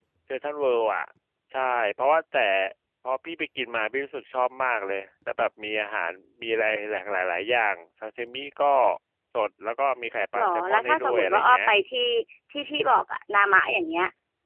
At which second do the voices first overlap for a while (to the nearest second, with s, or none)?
10 s